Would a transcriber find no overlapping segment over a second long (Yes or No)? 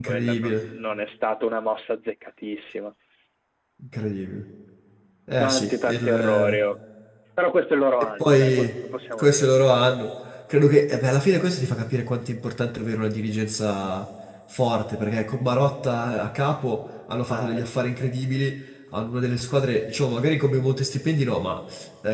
No